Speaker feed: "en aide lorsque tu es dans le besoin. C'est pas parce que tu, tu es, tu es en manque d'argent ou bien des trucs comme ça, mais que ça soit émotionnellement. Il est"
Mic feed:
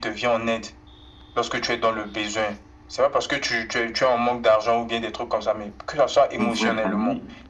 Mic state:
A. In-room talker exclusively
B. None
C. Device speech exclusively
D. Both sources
D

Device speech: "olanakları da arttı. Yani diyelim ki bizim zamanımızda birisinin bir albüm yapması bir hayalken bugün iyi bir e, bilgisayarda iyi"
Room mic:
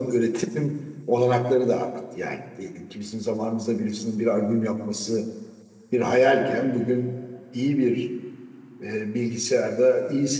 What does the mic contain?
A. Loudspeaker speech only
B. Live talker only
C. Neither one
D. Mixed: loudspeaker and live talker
A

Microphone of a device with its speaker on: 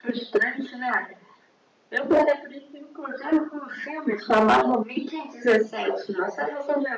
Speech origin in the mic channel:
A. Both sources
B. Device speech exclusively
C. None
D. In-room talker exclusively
B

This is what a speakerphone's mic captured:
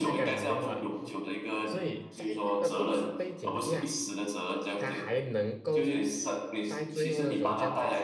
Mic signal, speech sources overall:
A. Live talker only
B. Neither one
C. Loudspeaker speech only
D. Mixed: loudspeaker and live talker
D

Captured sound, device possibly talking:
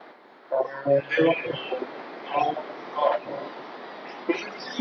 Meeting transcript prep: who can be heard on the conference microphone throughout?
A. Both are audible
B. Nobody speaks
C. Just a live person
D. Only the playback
D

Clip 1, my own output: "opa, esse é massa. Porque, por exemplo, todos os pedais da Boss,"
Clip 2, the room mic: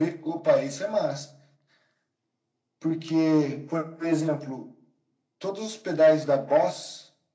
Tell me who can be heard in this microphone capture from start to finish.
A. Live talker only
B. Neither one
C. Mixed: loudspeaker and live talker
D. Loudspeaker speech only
D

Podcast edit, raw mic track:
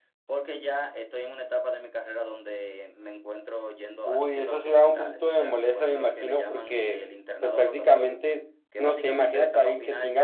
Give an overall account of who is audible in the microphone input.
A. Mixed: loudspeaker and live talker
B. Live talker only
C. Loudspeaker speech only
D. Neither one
C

